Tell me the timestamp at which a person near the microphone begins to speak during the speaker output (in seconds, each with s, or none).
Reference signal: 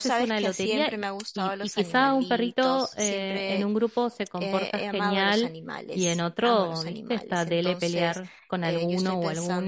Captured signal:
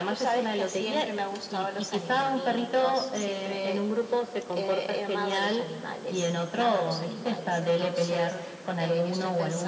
none